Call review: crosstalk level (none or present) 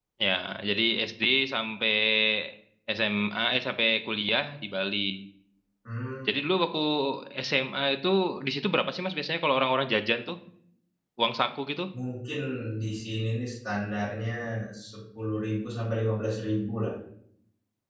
none